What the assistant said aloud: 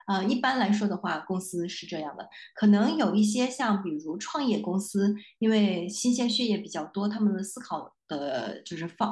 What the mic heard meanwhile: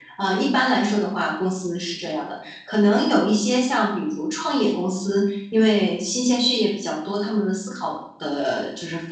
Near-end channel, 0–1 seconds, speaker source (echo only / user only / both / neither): echo only